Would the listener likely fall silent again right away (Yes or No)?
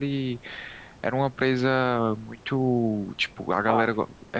Yes